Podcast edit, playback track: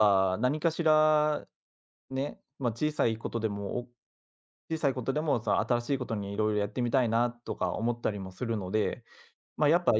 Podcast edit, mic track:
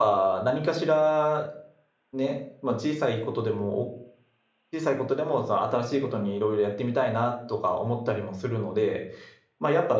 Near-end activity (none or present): none